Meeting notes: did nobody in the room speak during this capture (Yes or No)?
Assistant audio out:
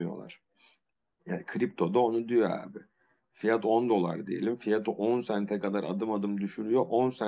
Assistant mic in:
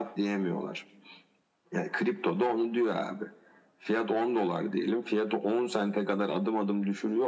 Yes